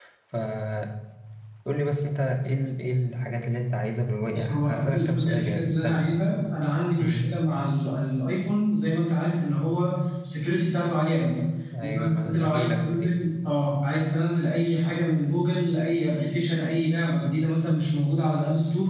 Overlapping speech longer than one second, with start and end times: 4.3-6.0, 11.8-13.1

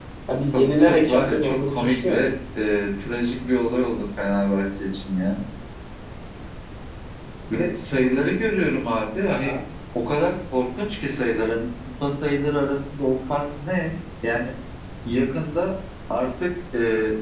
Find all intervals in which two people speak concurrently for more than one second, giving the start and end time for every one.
0.5-2.2

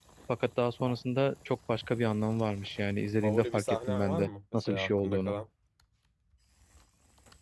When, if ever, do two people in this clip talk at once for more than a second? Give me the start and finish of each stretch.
3.2-5.3

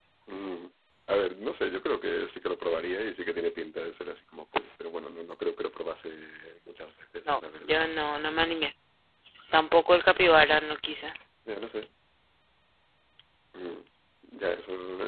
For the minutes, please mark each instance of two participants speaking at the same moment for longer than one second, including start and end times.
none

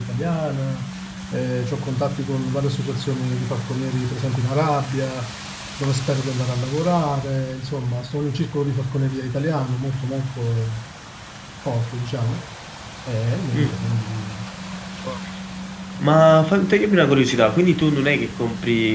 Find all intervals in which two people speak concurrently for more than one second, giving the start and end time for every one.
none

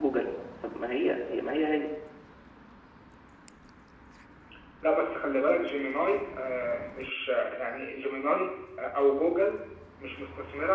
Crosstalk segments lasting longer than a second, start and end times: none

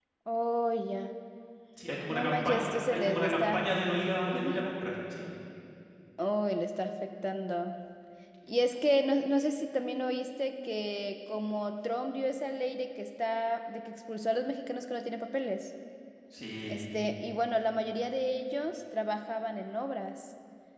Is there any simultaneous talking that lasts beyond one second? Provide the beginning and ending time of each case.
2.1-3.7

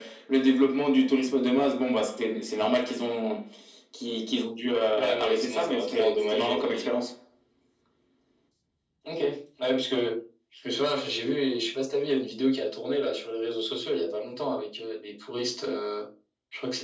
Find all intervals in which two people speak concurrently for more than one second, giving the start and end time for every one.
5.2-6.9

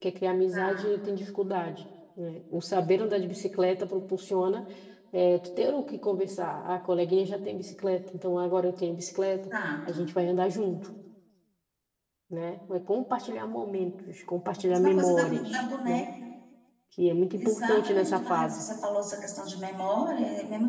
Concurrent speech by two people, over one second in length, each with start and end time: 14.7-16.1, 17.3-18.6

